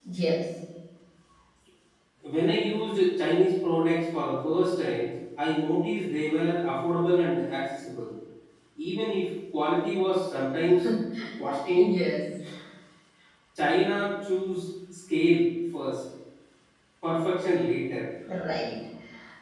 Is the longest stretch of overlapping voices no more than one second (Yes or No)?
Yes